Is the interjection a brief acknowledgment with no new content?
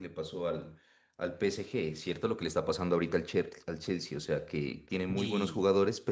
Yes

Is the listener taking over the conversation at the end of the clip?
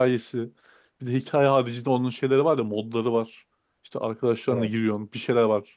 No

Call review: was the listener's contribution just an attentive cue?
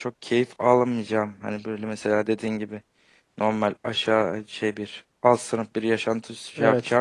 Yes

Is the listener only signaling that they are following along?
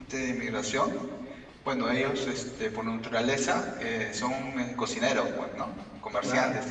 Yes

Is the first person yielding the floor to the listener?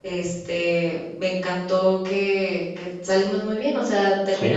No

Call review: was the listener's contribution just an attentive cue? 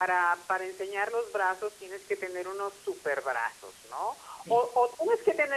Yes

